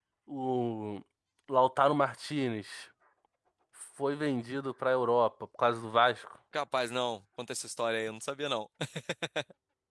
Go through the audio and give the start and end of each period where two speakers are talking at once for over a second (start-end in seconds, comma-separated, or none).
none